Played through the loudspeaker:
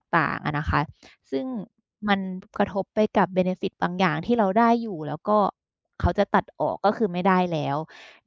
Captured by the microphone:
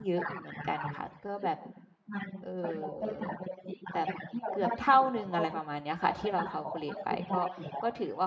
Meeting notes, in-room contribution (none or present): present